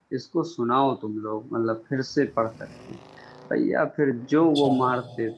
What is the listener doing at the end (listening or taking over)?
listening